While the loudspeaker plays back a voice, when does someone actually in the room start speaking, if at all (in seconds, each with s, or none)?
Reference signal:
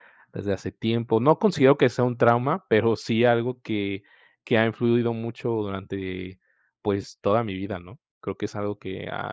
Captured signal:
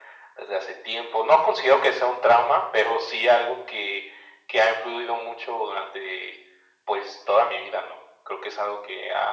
none